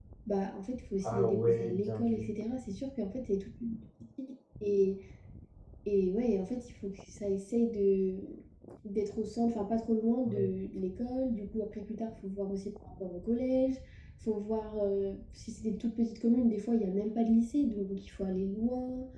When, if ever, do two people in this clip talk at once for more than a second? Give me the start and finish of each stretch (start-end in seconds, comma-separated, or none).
1.0-2.3